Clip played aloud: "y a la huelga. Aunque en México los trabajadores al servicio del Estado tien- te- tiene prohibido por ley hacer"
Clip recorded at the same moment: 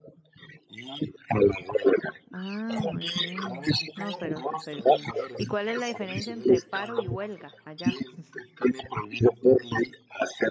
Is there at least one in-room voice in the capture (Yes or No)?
Yes